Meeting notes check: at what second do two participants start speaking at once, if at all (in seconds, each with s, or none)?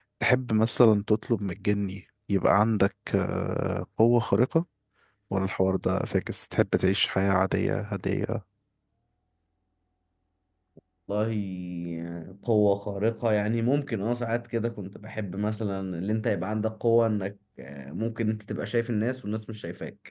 none